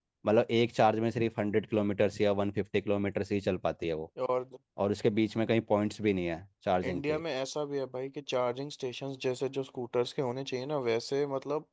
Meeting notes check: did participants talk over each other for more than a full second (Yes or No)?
No